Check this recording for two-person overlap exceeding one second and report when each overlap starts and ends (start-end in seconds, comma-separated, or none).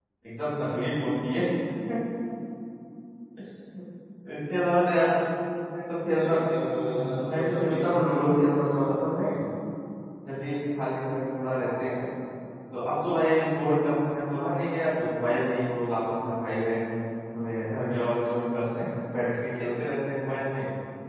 6.8-8.2